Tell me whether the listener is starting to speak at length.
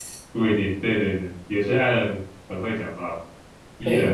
Yes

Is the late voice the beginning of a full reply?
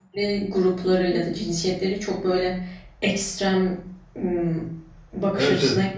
Yes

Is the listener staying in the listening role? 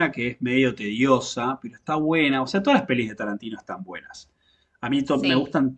Yes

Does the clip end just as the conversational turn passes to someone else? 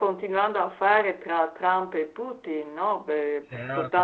Yes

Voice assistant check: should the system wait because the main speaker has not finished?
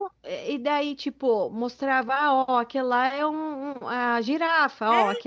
No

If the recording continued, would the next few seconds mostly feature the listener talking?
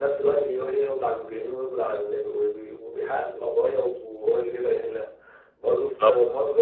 No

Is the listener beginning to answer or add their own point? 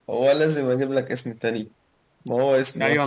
Yes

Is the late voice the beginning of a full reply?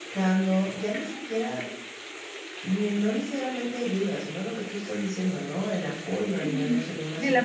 Yes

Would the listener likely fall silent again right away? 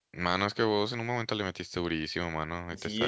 No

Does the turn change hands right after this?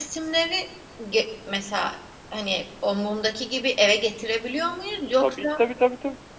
Yes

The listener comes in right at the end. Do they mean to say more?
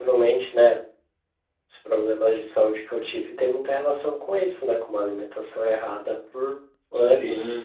Yes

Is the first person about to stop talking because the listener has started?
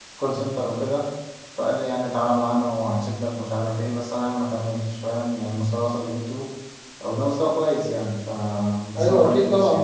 Yes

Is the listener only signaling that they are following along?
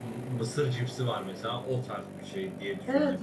No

